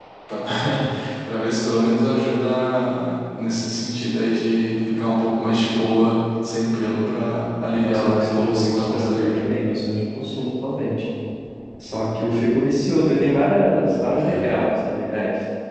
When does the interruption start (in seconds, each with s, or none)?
7.8 s